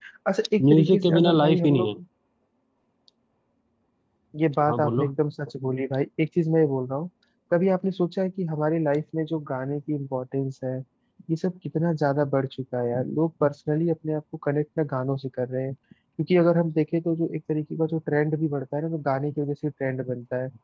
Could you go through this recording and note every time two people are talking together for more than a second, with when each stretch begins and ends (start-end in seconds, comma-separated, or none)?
0.7-2.0